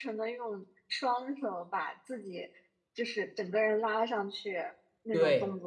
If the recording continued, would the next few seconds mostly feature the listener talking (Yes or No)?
Yes